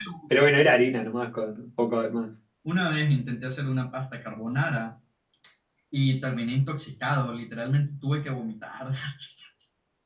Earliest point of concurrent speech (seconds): none

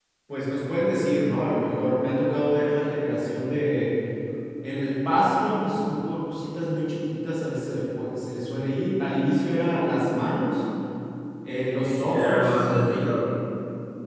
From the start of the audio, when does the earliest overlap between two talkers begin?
11.8 s

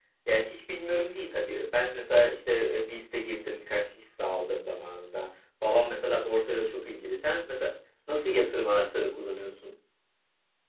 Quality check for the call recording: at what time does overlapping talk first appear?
none

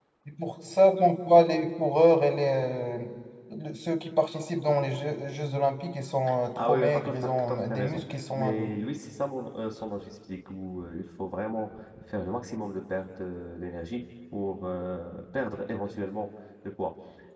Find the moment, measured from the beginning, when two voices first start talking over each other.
6.6 s

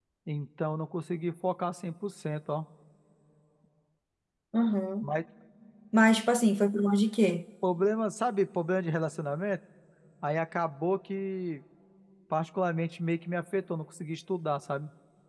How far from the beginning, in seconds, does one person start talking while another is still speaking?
none

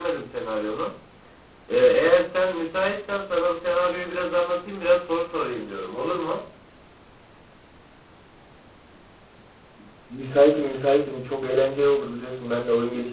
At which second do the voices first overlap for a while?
none

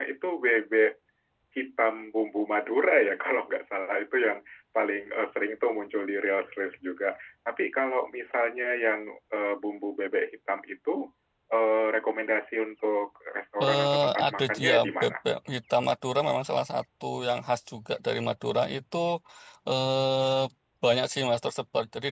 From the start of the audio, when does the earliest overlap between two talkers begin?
13.6 s

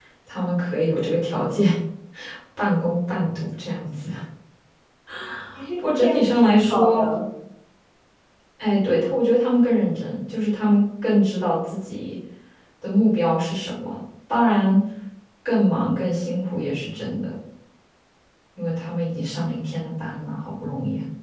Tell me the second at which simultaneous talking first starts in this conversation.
5.8 s

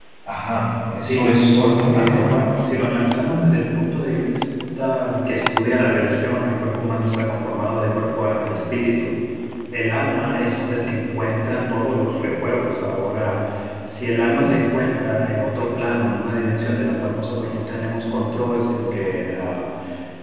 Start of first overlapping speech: 1.0 s

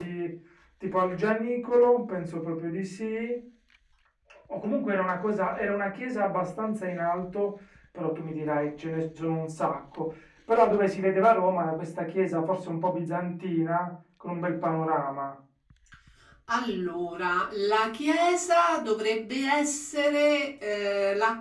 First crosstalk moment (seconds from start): none

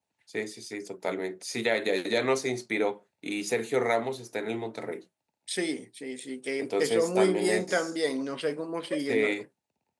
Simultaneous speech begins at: 6.6 s

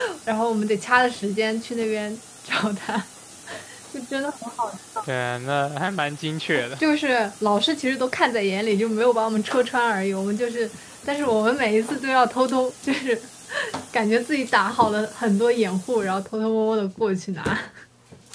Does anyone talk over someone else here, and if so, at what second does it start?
none

